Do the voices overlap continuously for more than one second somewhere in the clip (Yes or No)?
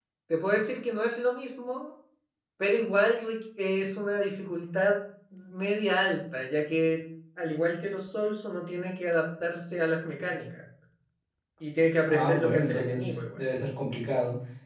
Yes